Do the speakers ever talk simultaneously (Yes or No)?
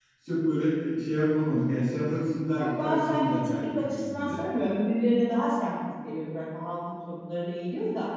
Yes